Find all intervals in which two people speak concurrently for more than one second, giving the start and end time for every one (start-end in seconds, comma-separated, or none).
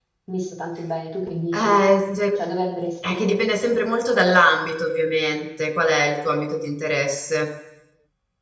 none